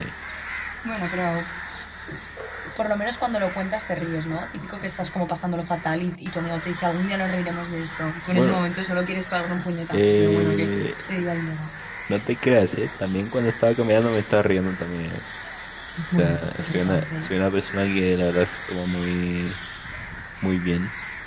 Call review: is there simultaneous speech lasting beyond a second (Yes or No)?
Yes